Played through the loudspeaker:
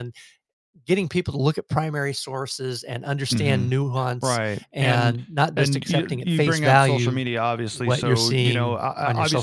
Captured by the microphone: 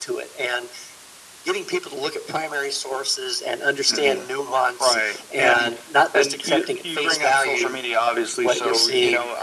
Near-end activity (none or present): none